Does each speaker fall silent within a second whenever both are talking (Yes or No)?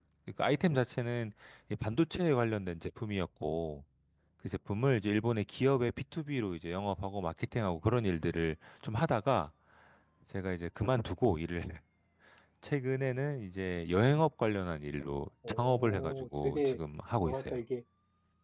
No